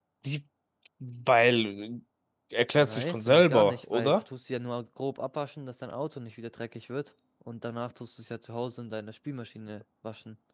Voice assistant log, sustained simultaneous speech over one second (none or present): present